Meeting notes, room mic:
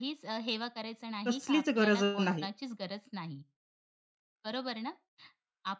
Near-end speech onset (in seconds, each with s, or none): 1.3 s